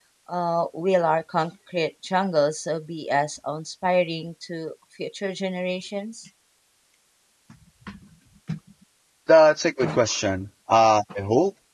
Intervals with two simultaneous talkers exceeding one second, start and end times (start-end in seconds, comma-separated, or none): none